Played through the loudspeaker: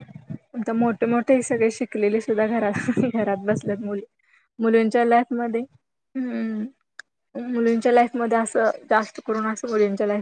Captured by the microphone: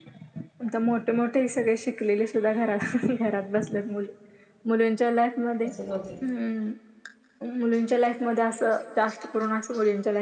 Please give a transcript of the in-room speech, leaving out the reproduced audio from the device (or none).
असच होते.